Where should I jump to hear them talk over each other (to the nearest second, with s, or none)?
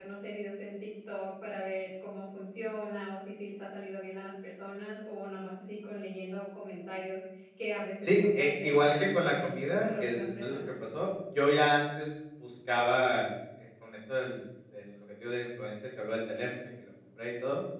8 s